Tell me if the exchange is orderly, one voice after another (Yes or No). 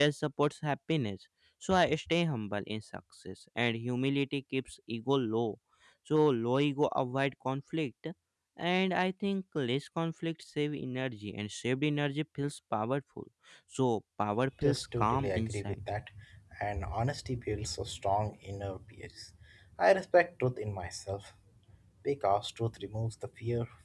No